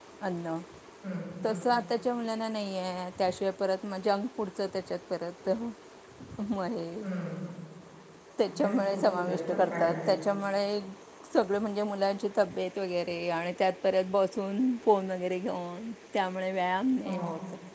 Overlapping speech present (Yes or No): Yes